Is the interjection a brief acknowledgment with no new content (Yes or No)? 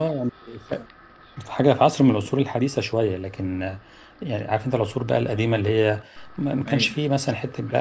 Yes